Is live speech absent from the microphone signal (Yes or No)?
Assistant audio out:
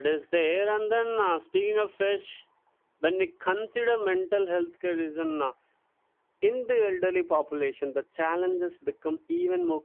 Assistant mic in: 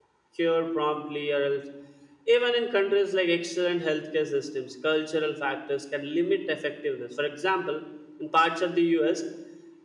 No